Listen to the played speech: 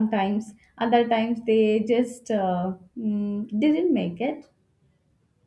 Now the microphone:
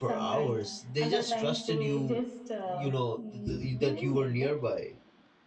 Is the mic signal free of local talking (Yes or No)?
No